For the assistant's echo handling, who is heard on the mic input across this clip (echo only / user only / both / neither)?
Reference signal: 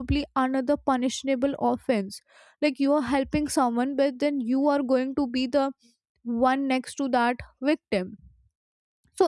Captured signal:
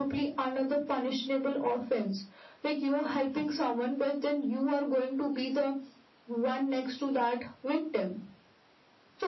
echo only